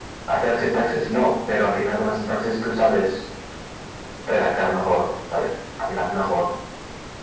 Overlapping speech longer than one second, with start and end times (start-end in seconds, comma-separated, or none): none